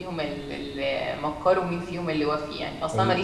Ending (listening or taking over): listening